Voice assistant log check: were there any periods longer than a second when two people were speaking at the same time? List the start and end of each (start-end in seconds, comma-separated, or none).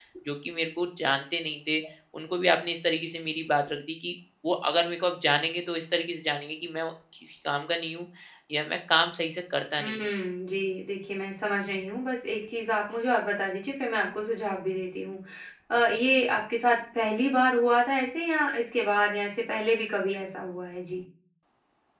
none